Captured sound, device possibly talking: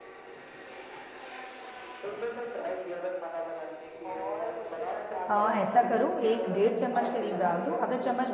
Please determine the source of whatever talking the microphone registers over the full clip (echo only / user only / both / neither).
both